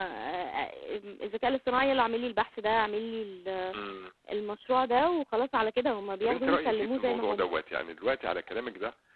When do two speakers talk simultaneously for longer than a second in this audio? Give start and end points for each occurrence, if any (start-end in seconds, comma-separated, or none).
6.2-7.5